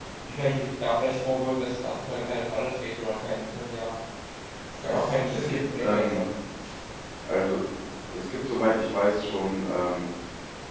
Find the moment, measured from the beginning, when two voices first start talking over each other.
4.9 s

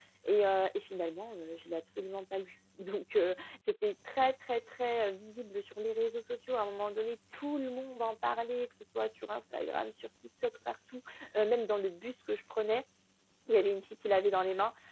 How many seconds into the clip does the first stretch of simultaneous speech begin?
none

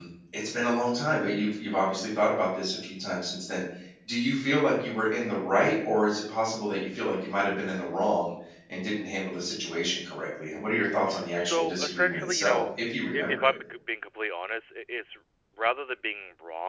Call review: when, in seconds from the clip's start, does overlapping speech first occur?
11.4 s

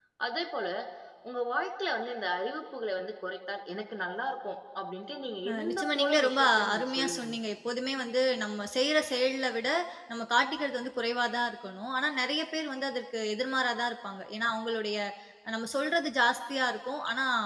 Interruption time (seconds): 5.5 s

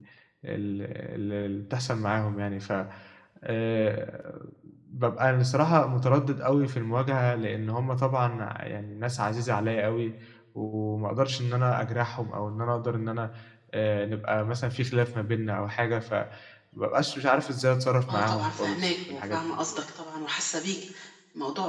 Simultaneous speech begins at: 18.1 s

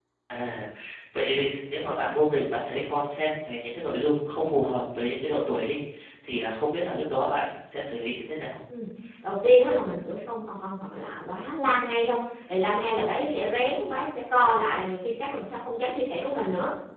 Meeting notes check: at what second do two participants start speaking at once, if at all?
none

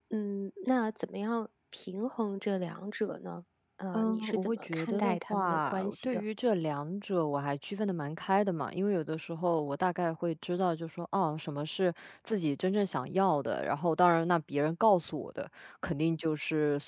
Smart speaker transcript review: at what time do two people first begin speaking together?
3.9 s

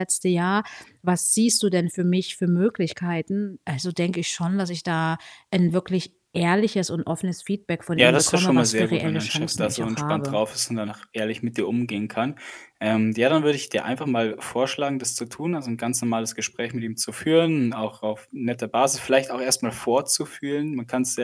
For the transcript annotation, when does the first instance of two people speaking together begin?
8.0 s

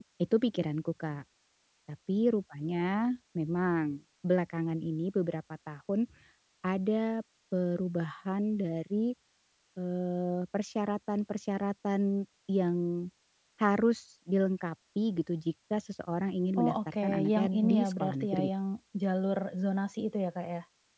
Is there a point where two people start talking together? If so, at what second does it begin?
16.6 s

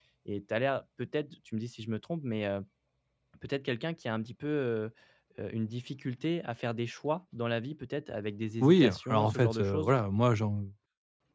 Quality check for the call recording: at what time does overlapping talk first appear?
8.6 s

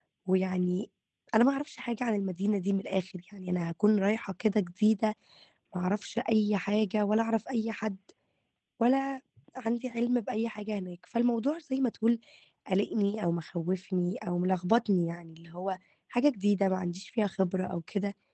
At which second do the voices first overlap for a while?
none

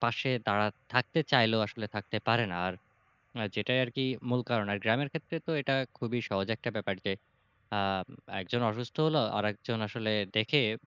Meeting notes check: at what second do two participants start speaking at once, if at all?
none

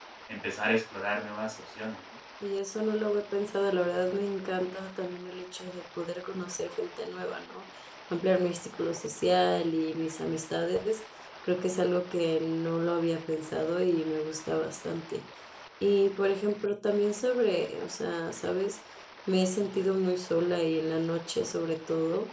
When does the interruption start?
none

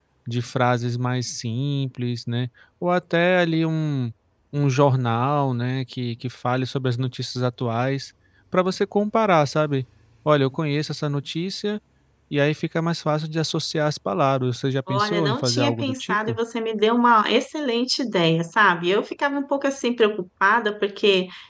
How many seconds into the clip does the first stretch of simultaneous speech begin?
14.9 s

